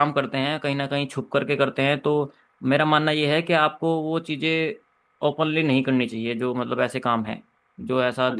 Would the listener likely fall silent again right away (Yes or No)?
No